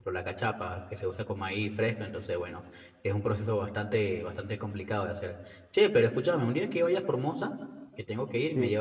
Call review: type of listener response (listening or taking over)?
listening